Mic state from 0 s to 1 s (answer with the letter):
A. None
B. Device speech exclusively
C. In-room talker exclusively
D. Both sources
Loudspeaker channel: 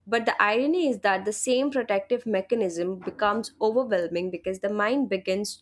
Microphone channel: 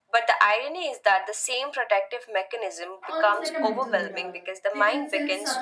B